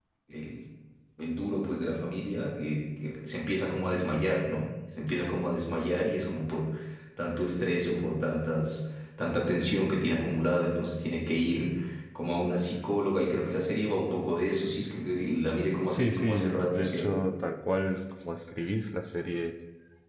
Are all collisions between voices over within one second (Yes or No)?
No